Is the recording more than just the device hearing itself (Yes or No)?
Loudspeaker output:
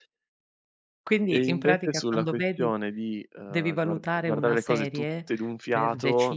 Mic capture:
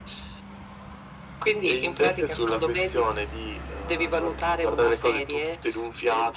No